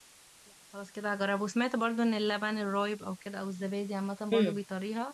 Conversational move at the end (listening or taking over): taking over